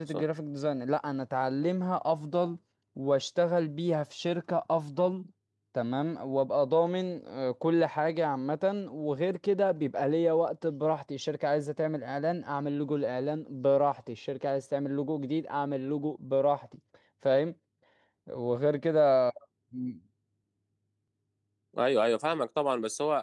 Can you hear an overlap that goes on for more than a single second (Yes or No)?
No